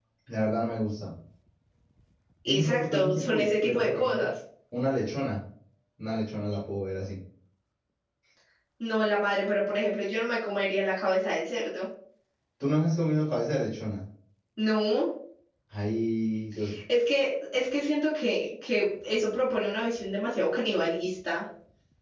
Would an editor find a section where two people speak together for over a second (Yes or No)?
Yes